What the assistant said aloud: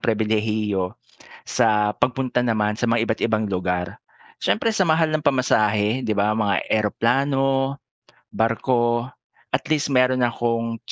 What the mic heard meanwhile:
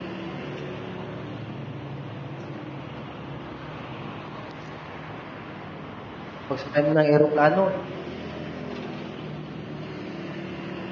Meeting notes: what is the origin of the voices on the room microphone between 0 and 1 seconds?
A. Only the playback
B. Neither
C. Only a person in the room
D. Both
B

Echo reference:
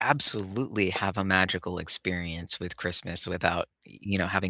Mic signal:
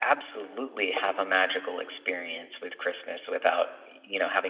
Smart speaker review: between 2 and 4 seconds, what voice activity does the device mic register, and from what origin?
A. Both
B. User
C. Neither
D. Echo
D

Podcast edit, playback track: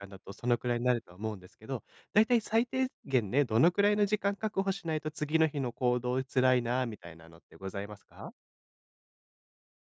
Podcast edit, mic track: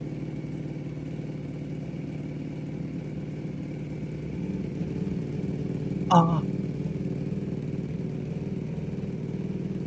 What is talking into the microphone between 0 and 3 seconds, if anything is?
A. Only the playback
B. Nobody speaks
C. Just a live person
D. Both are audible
B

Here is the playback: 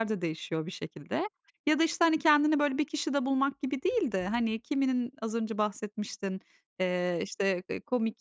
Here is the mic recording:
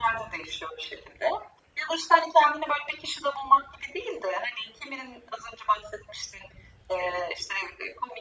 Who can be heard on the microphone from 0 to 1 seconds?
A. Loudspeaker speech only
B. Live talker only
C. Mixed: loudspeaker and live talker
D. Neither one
A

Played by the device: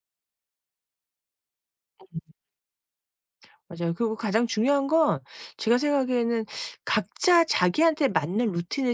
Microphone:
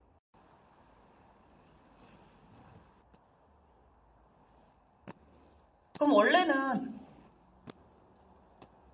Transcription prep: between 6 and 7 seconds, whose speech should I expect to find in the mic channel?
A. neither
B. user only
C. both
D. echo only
B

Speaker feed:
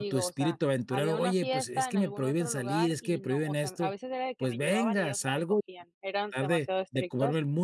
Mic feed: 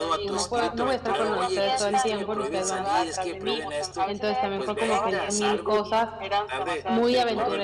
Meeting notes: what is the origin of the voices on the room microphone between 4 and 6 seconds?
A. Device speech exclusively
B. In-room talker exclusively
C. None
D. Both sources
D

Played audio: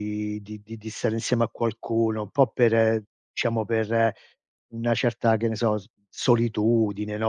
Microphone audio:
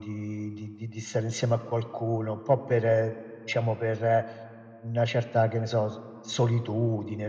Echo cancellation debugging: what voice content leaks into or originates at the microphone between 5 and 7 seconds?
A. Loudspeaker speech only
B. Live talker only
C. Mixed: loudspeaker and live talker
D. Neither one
A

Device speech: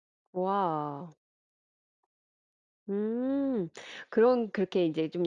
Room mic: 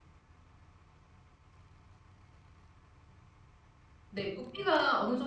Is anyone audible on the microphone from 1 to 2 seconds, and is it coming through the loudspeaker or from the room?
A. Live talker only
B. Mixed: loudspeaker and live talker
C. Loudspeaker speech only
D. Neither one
D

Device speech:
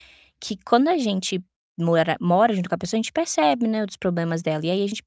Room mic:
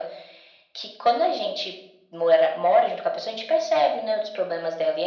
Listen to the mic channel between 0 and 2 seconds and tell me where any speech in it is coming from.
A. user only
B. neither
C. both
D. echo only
D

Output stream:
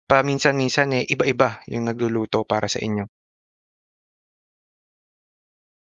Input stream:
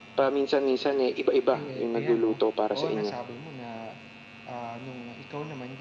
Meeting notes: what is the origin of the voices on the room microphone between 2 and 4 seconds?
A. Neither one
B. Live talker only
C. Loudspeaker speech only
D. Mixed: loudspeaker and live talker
D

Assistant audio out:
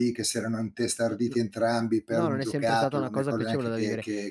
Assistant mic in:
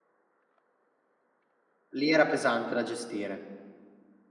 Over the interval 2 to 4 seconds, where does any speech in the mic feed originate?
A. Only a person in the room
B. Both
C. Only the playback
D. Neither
A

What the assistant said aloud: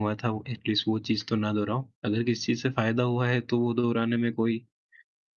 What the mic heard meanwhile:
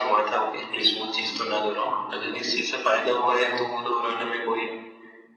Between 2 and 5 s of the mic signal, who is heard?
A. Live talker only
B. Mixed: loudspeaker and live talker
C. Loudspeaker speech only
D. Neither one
C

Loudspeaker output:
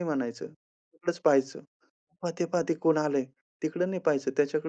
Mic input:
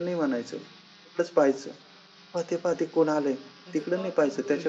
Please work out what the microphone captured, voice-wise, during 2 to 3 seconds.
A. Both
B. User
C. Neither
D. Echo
D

